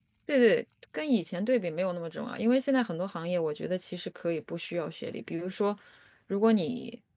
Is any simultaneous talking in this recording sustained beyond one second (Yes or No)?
No